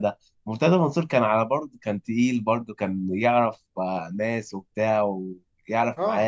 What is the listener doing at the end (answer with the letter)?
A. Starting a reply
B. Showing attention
A